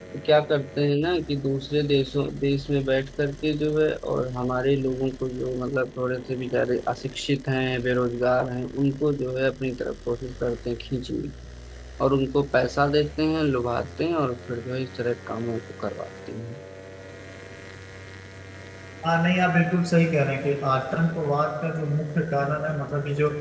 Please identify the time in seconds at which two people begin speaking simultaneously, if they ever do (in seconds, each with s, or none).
none